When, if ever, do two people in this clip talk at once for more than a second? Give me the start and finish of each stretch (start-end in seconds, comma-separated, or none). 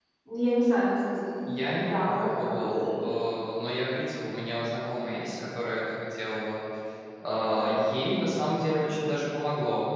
1.6-3.0